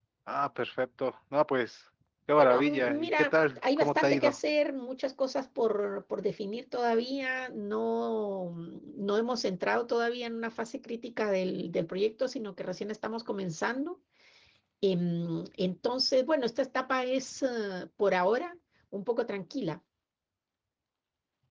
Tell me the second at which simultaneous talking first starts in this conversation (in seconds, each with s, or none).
2.4 s